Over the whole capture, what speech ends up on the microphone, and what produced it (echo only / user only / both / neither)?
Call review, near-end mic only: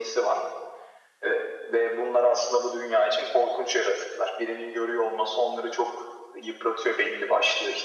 echo only